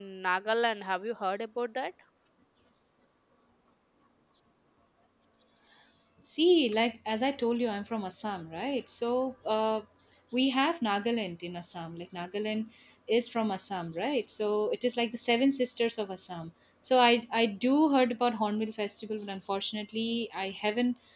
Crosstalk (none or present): none